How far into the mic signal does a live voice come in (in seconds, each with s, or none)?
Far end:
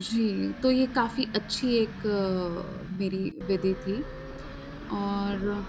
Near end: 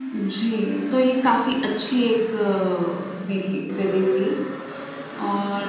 none